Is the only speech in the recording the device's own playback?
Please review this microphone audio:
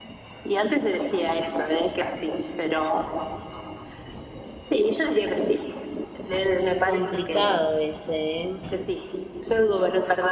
No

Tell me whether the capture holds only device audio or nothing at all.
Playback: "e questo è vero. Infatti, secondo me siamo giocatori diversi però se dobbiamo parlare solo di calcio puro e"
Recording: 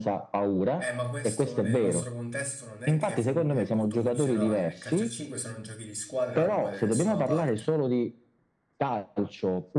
No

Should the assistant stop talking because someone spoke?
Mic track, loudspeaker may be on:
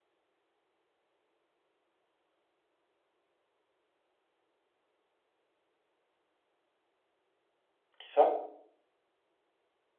Yes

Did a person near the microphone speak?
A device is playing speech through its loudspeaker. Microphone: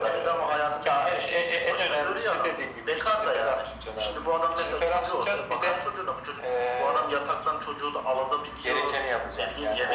No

